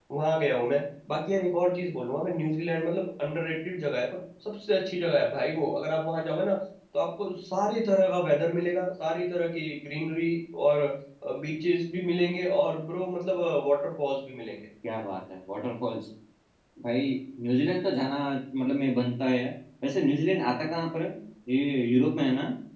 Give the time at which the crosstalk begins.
none

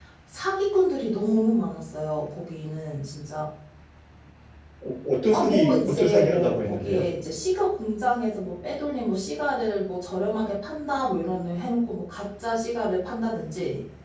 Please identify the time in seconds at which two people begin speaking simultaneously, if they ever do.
5.3 s

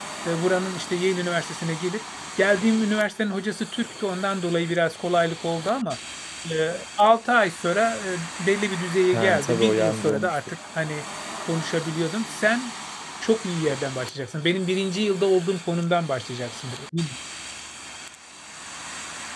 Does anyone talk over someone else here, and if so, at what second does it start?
9.1 s

